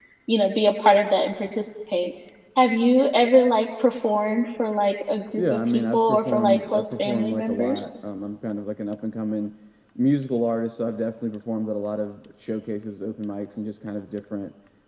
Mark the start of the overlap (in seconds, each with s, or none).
5.4 s